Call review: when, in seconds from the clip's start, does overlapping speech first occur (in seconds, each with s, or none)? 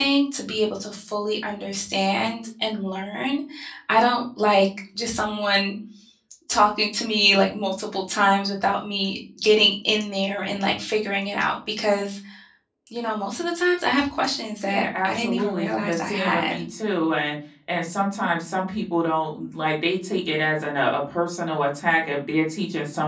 14.7 s